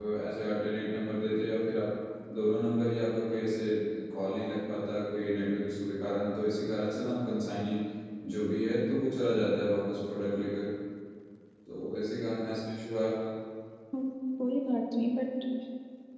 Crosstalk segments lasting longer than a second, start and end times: none

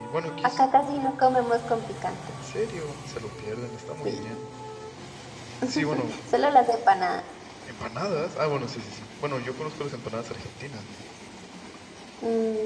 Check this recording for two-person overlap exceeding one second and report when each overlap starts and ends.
none

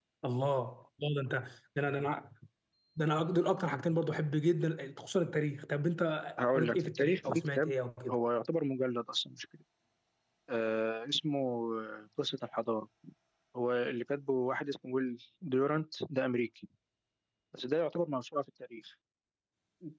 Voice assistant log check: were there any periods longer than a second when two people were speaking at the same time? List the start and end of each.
6.5-7.7

